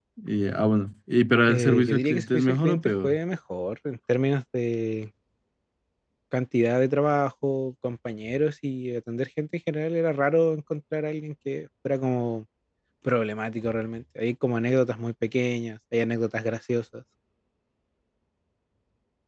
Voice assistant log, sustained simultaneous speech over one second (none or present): present